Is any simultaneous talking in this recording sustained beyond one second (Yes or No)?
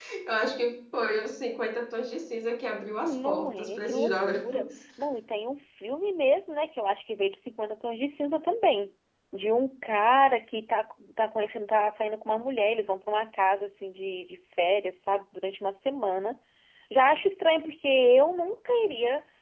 Yes